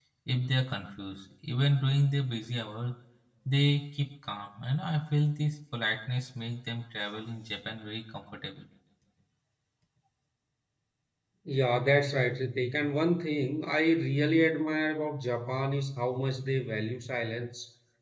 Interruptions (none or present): none